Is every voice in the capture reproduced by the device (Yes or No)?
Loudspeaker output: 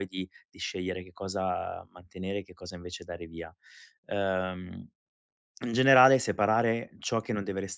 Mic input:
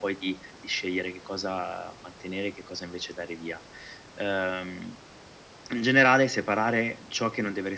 Yes